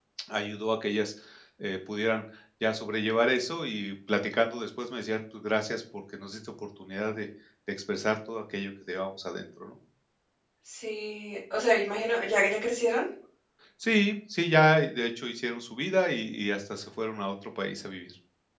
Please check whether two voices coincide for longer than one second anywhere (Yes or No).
No